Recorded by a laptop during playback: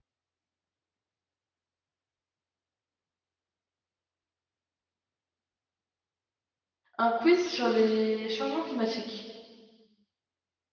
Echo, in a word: none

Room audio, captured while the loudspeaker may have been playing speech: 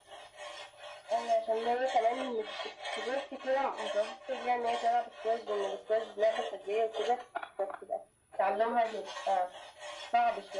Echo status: present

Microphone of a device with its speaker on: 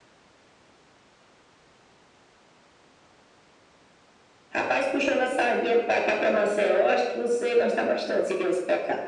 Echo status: present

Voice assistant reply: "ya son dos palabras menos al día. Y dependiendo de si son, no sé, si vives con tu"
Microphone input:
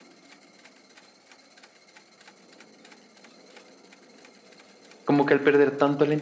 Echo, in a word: none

